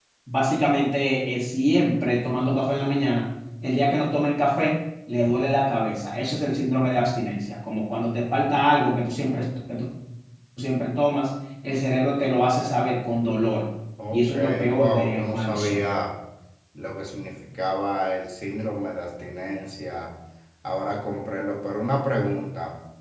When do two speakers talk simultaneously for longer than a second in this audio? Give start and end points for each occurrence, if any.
14.1-15.8

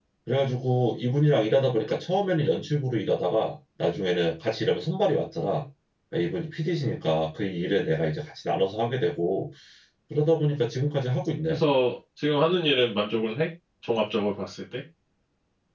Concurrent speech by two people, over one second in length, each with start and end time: none

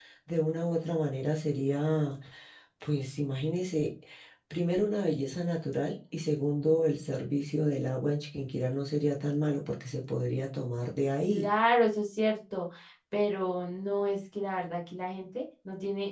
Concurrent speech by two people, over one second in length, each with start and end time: none

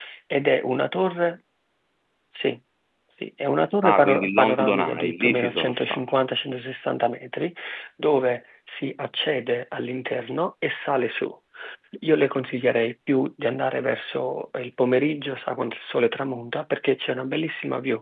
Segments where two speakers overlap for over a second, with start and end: 3.8-6.0

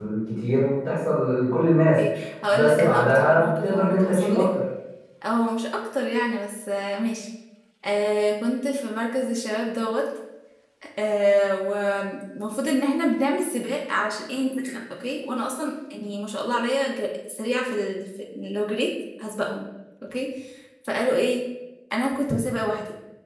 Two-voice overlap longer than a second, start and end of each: 2.5-4.5

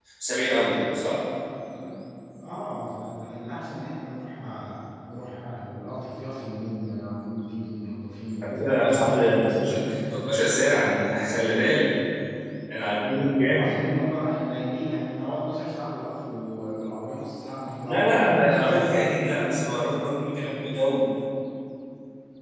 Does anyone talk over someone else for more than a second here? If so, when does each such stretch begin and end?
8.4-9.8, 17.8-19.1

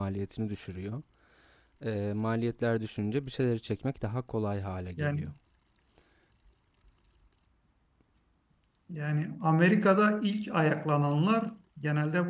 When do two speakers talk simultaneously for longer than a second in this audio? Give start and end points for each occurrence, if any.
none

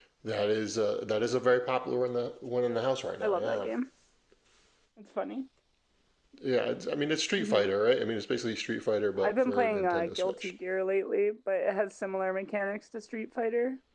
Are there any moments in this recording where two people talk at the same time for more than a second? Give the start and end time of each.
9.2-10.5

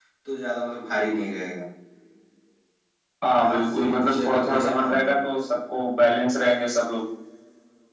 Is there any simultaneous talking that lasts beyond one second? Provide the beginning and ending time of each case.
3.3-5.1

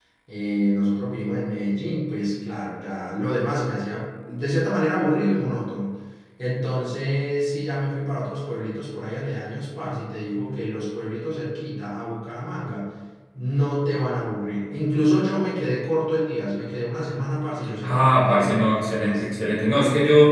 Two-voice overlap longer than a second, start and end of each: 17.8-19.5

